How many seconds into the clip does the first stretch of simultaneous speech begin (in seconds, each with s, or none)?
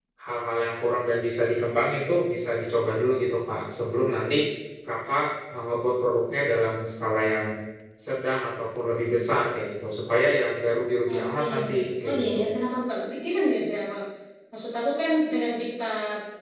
11.1 s